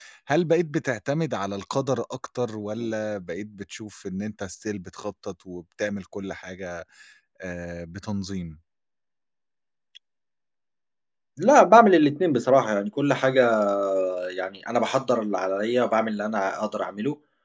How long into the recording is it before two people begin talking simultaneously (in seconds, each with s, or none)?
none